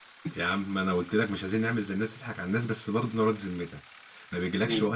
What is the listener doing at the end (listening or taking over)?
listening